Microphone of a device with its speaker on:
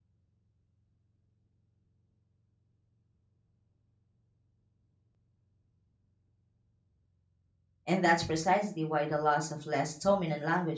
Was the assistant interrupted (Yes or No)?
Yes